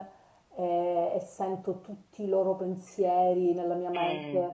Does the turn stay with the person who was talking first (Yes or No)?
Yes